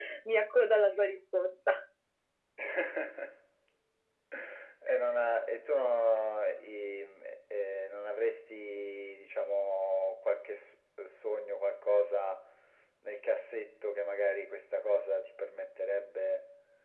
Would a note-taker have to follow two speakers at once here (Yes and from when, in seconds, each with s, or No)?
No